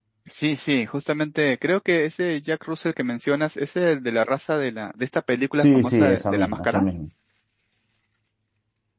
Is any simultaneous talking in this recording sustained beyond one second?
Yes, from 5.6 s

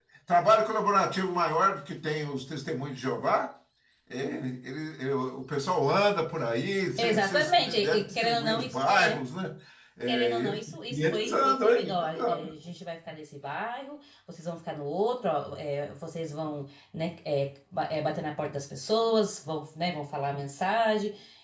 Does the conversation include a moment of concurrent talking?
Yes, from 7.0 s

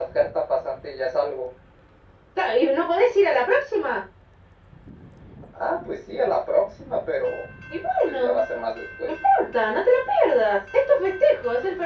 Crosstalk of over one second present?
No

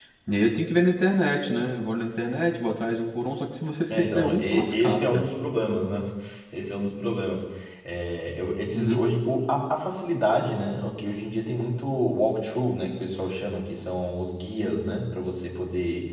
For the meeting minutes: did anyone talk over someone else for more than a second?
Yes, from 4.0 s

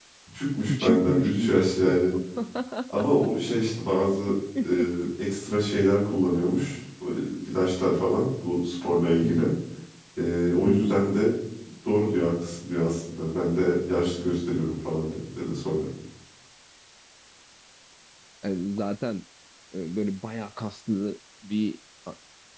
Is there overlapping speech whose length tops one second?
Yes, from 0.7 s

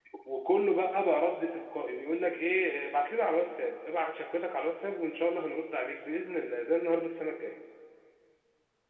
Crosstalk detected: No

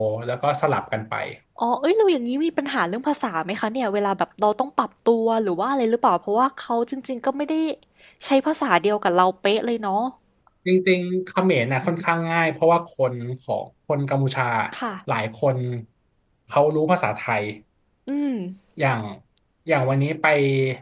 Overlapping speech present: No

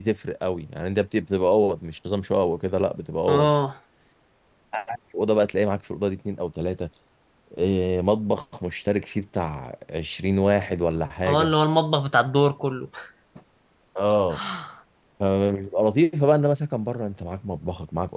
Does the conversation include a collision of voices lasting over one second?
No

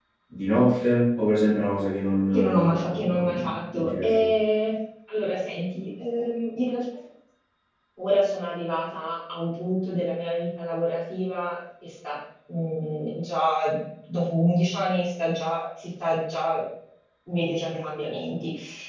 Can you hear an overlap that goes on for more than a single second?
Yes, from 2.3 s

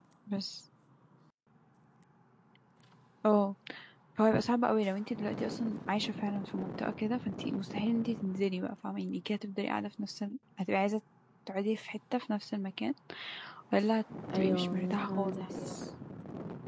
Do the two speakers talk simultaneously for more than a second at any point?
Yes, from 14.3 s

